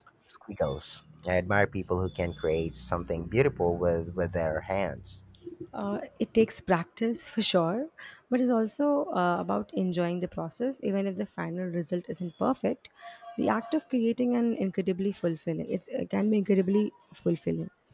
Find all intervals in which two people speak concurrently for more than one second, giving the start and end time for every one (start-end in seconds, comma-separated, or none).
none